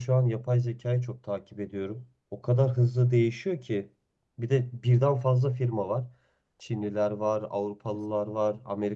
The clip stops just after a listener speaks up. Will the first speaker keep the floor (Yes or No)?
Yes